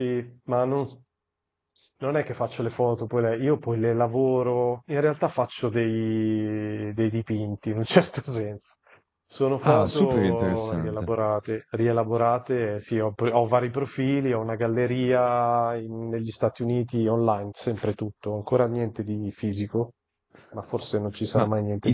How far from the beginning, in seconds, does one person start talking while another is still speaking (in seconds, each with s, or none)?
9.6 s